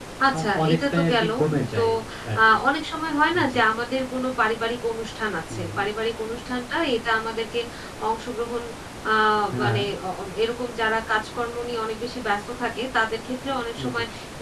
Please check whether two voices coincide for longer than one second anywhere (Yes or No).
Yes